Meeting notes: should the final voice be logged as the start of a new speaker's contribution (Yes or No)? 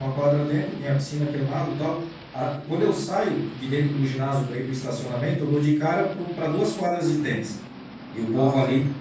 No